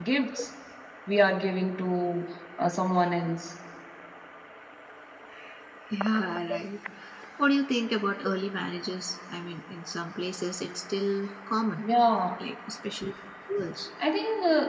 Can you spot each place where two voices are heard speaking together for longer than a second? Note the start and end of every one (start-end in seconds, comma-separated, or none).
none